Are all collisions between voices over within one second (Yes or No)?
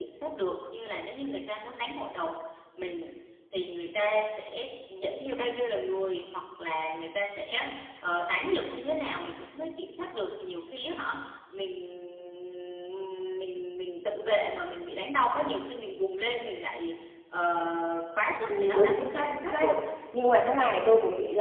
No